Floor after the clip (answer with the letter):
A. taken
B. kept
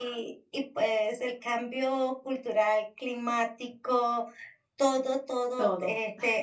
B